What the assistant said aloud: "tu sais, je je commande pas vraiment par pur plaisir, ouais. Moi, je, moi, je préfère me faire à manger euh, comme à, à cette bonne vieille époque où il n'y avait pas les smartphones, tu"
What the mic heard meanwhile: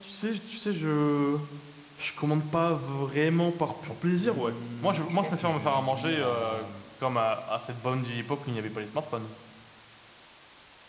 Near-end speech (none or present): present